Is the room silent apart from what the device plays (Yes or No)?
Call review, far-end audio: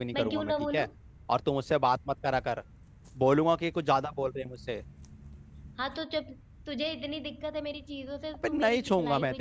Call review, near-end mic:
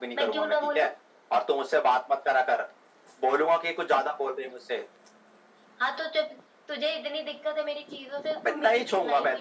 Yes